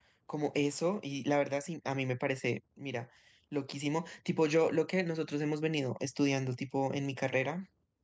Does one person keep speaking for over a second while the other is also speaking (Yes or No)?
No